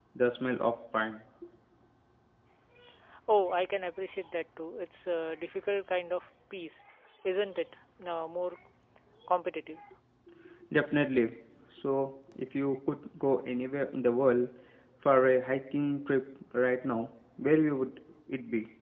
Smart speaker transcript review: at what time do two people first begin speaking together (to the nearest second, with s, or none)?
none